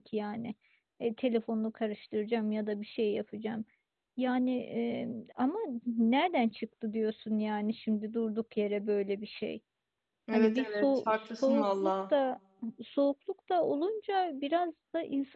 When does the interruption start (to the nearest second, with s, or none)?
10 s